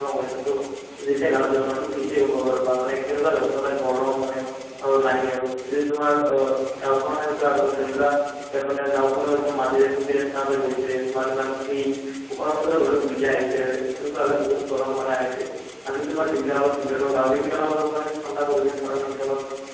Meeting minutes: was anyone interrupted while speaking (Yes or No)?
No